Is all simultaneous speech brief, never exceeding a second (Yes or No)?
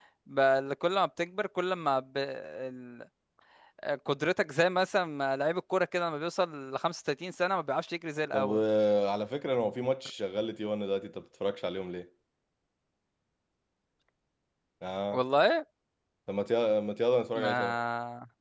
Yes